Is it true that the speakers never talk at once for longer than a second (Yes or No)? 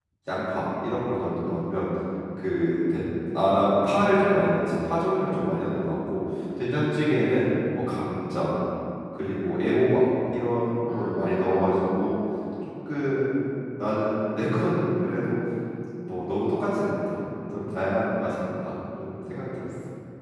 No